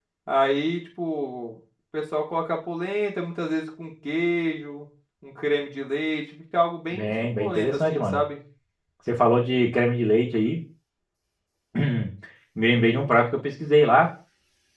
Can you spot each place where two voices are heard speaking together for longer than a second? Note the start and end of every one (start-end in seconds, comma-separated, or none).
6.9-8.2